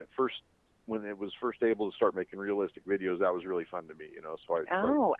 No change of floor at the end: No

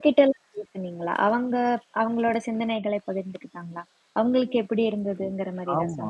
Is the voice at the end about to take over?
Yes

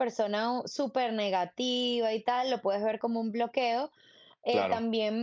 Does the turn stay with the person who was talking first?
Yes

